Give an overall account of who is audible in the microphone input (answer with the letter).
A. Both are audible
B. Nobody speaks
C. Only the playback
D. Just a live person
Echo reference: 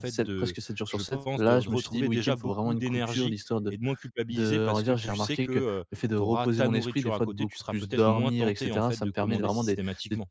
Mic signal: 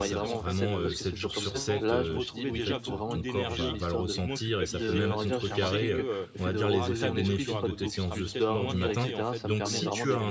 A